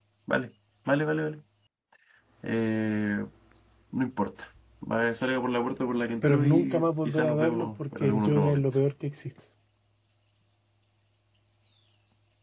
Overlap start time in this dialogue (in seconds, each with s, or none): 6.2 s